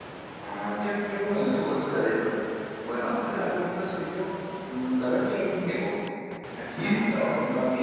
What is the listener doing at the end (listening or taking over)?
listening